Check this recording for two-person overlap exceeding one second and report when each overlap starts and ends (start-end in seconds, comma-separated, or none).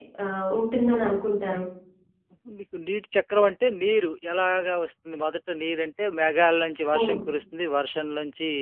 none